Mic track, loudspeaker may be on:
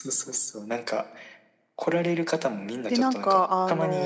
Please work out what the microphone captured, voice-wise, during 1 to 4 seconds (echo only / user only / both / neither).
both